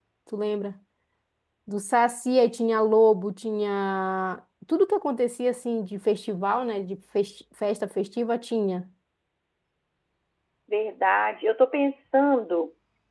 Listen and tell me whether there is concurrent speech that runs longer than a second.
No

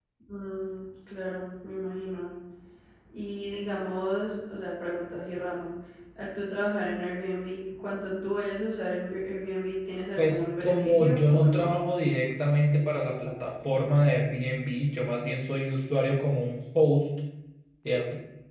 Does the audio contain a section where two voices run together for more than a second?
Yes, from 10.2 s

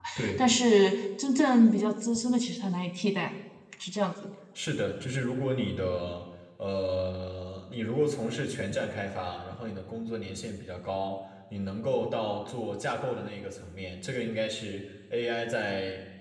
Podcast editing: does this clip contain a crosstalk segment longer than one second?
No

